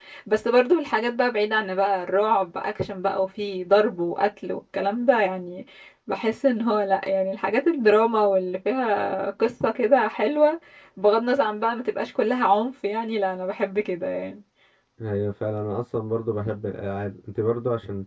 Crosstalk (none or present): none